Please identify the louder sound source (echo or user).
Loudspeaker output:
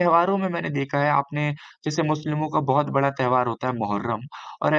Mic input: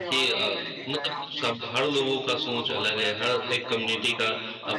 user